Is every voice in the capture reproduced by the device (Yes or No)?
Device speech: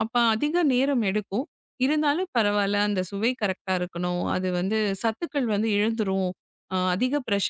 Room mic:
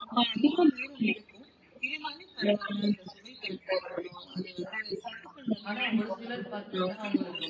No